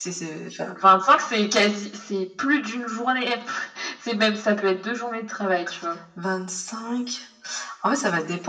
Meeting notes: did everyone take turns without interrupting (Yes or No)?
Yes